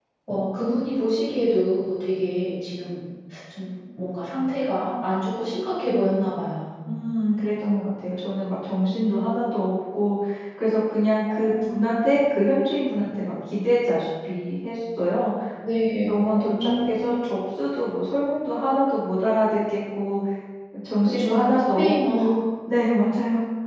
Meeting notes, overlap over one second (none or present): present